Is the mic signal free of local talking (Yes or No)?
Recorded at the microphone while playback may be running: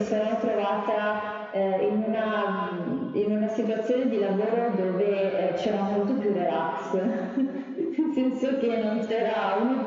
Yes